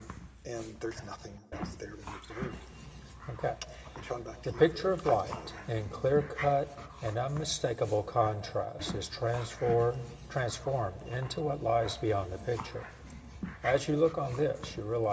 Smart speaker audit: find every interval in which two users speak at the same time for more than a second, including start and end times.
4.5-5.8

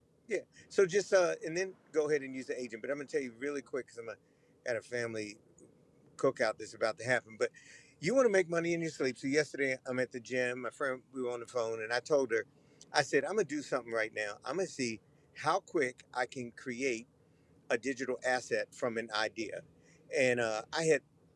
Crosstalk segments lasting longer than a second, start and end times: none

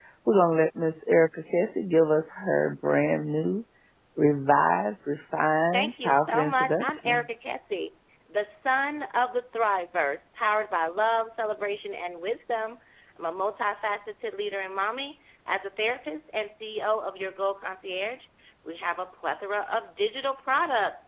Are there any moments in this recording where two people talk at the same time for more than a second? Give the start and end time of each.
5.7-7.2

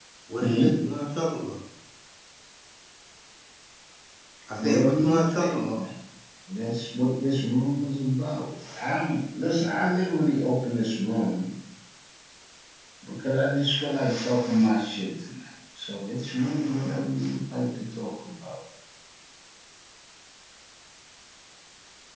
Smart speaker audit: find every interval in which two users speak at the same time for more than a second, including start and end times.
4.6-5.8

